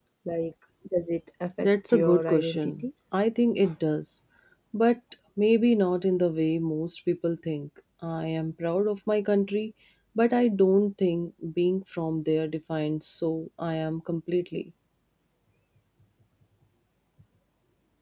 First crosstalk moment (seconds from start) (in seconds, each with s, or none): 1.6 s